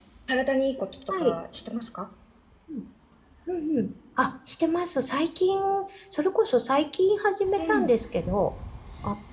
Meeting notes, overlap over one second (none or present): none